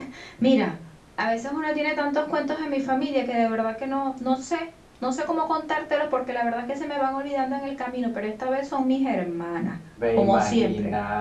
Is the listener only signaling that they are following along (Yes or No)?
No